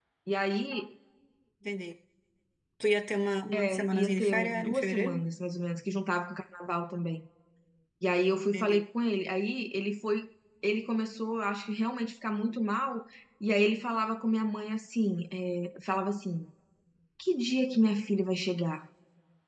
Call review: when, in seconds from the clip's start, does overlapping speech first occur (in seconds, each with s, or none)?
3.5 s